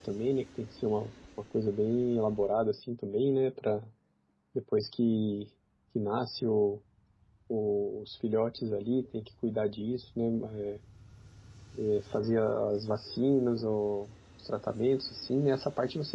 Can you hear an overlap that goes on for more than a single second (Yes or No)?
No